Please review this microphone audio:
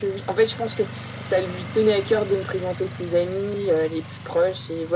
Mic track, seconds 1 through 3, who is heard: echo only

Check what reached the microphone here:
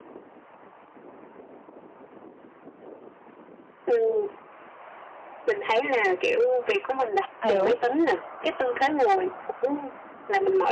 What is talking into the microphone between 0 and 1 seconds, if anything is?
neither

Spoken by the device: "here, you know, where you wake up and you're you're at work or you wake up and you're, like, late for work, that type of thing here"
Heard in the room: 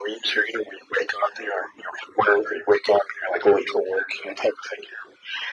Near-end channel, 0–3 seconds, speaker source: echo only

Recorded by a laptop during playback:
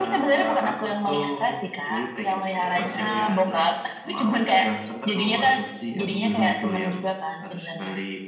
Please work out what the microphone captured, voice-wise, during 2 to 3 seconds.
both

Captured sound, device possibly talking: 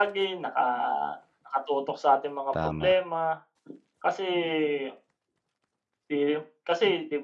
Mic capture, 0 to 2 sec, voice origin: echo only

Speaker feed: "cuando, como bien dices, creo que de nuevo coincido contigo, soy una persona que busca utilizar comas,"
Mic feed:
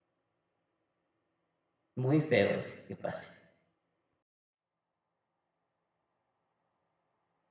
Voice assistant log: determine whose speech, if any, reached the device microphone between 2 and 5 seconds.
user only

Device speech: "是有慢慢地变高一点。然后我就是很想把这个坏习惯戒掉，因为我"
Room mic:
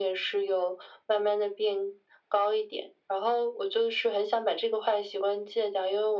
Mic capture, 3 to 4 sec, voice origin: echo only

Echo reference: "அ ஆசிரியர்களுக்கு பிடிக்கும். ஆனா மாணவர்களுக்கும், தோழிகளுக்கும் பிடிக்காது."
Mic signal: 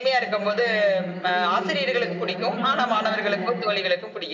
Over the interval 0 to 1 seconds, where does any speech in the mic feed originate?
both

